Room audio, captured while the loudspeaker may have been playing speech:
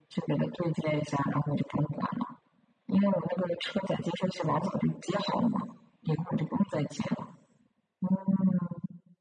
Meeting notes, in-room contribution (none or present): none